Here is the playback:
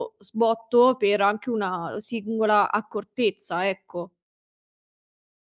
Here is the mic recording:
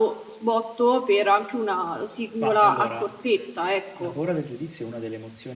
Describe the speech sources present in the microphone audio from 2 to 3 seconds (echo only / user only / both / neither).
both